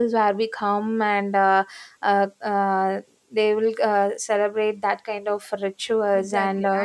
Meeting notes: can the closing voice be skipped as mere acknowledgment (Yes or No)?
No